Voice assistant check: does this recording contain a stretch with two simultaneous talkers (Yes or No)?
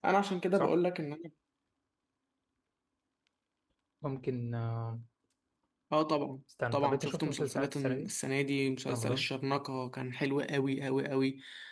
Yes